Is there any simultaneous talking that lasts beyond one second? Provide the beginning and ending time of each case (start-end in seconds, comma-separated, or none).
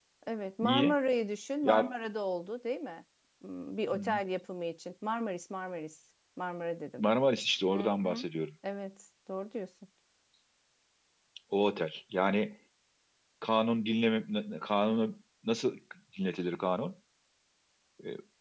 none